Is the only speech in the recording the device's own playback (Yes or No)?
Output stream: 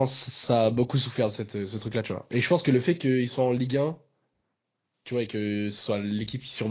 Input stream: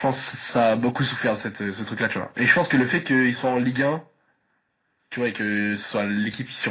Yes